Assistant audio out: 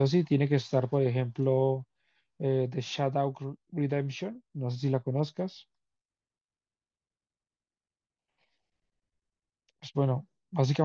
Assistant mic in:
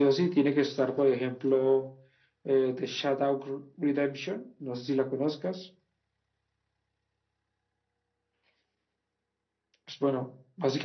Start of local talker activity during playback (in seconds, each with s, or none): none